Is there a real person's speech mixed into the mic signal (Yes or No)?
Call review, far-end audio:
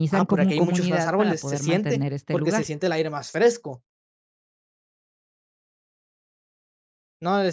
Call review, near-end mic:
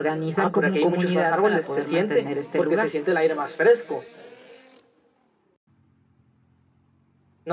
No